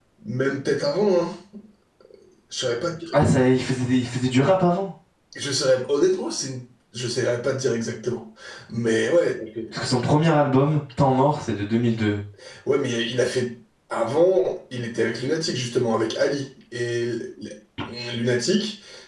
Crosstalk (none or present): none